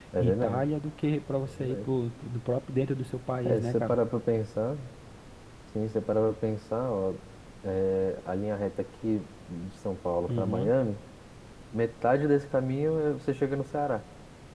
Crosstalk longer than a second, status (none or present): none